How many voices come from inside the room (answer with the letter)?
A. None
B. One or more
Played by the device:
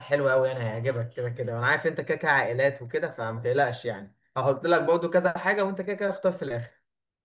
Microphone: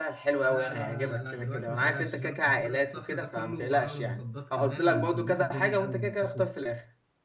B